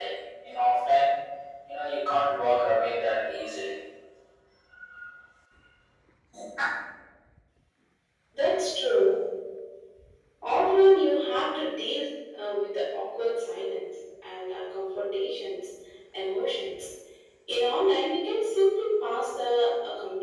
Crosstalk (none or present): none